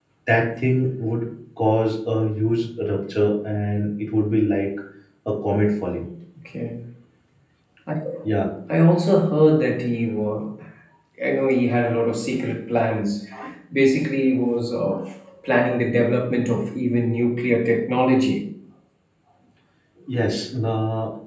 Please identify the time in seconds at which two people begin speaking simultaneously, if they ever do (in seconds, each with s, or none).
none